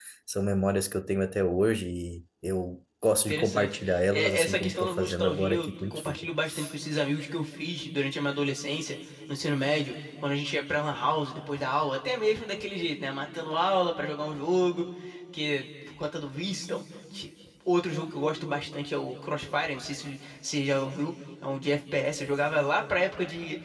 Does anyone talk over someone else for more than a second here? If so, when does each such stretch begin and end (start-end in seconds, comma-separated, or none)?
3.3-6.3